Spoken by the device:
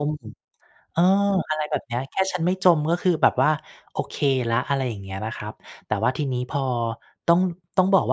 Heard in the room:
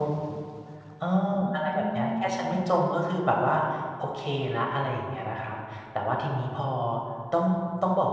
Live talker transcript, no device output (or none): อ๋อ